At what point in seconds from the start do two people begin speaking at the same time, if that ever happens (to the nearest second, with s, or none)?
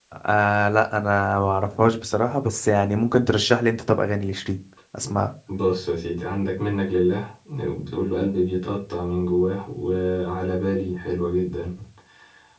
none